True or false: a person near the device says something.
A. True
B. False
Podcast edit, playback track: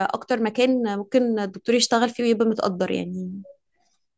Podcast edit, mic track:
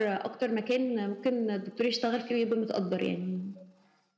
B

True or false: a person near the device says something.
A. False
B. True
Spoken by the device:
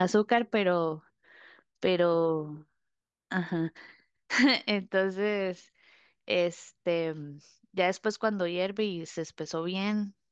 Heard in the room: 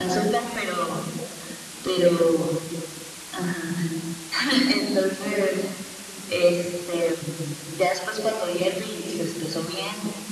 A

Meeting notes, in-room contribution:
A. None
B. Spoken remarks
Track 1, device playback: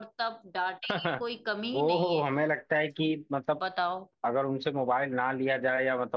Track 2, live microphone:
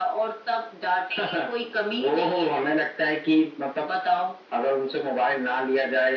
A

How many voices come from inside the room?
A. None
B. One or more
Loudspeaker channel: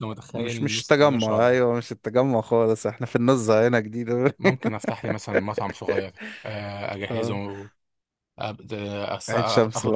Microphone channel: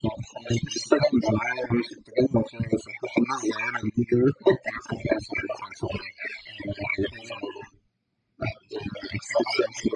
A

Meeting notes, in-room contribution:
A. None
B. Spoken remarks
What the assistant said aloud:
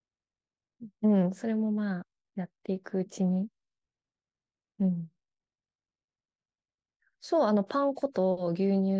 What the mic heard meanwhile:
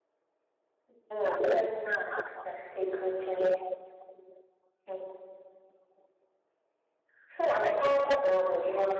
A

